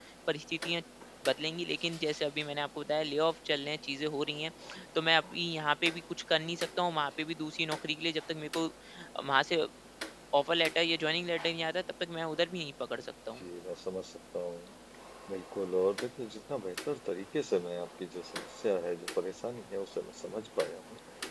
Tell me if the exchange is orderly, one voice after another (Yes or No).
Yes